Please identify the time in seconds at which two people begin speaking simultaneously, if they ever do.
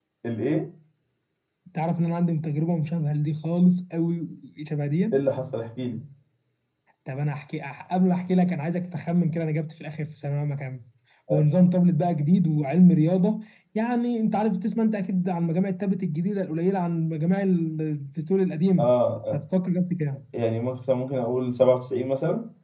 none

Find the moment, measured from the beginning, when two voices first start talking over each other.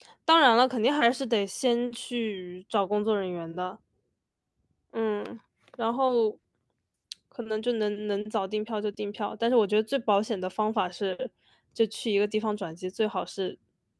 none

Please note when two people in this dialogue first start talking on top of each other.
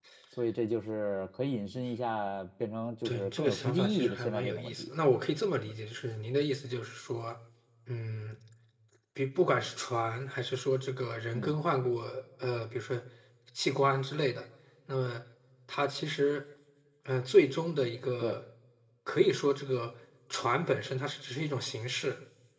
3.0 s

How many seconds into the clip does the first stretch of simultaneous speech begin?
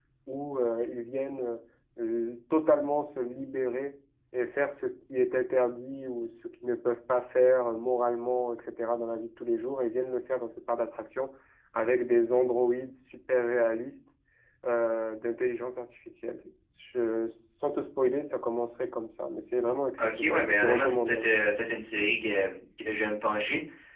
20.0 s

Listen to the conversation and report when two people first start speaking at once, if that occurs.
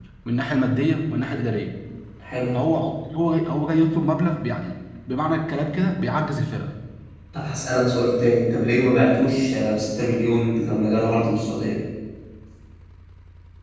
none

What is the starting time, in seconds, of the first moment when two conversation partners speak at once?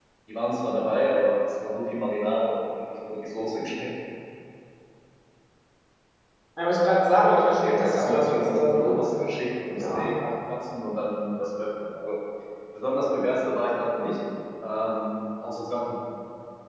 7.6 s

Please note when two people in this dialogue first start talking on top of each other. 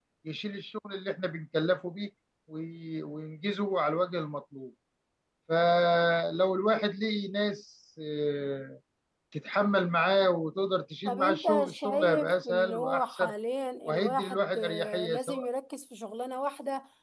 11.0 s

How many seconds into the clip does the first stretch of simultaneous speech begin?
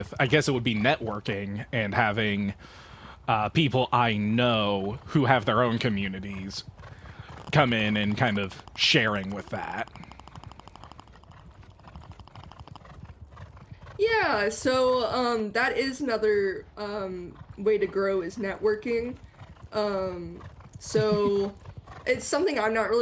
none

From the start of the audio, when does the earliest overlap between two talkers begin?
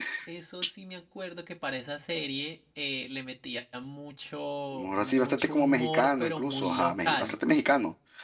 4.7 s

